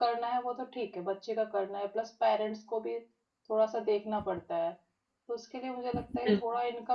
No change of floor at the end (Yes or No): Yes